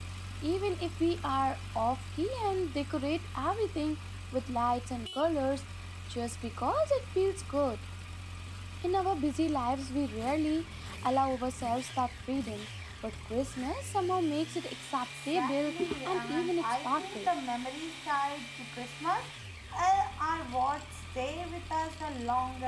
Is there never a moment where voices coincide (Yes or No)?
No